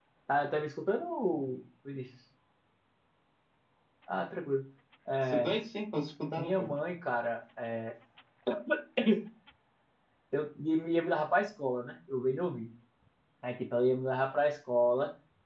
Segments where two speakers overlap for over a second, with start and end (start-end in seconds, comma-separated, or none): none